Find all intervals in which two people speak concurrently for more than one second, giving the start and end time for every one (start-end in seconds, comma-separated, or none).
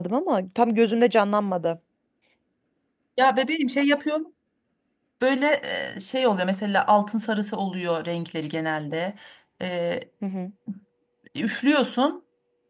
none